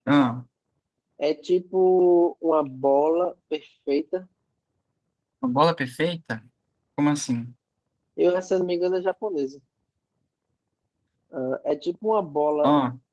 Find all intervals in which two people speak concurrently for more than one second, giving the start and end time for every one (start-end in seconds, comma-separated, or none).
none